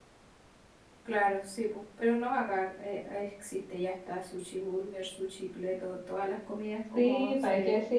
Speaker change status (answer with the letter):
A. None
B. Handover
B